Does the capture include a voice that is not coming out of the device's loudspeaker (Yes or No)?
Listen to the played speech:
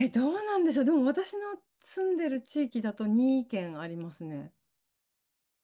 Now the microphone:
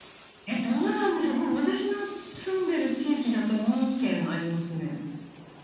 No